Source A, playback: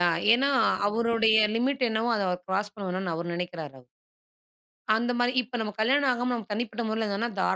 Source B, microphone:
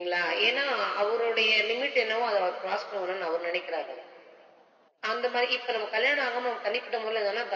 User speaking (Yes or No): No